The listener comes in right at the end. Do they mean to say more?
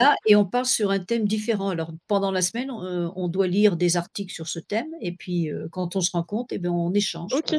Yes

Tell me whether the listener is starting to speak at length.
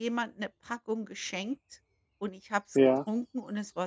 No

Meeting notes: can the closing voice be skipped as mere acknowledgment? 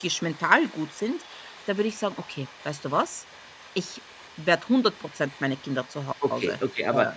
No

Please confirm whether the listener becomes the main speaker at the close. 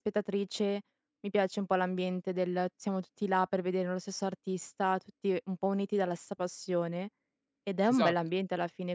No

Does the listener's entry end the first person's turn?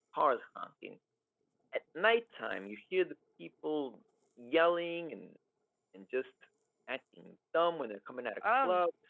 Yes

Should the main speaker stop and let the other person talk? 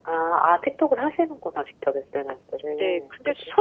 Yes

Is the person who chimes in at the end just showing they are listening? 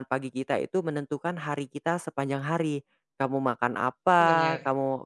Yes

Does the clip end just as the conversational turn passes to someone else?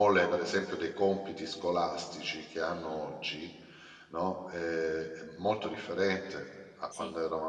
No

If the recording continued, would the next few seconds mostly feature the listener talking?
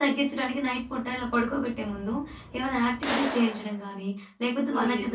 No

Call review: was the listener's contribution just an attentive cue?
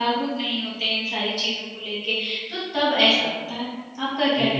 No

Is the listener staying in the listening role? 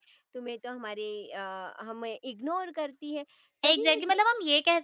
No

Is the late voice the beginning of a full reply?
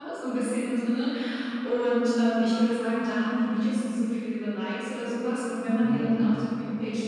No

